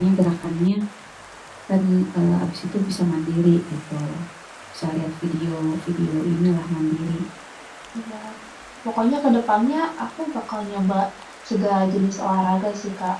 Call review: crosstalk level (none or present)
none